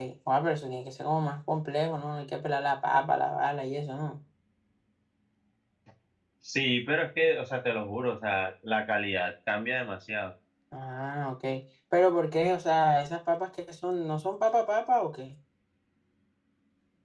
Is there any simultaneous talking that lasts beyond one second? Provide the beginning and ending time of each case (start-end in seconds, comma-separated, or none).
none